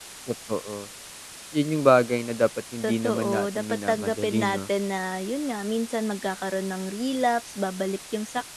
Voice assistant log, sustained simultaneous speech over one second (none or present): present